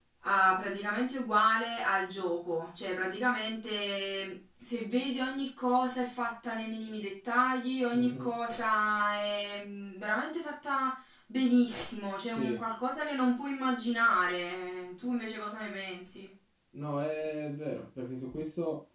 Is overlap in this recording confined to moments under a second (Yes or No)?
Yes